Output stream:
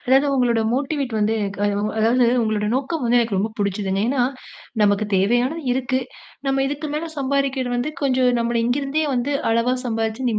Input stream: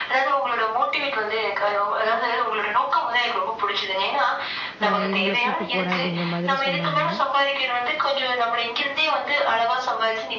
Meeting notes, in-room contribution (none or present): present